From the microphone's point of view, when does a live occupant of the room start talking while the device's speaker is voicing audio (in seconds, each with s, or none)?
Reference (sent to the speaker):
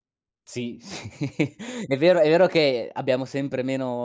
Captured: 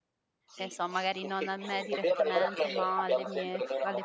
0.6 s